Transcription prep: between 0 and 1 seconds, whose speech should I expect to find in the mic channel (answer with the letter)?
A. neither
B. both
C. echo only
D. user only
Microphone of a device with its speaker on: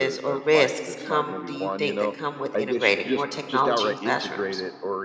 B